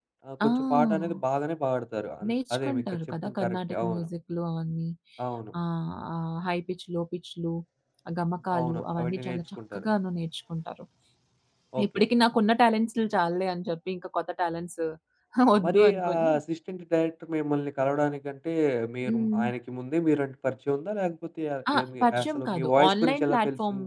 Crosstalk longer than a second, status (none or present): present